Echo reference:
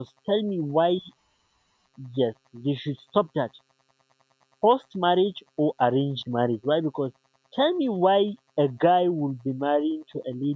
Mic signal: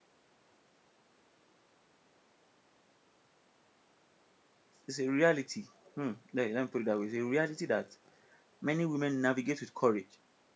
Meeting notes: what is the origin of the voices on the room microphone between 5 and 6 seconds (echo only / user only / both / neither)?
user only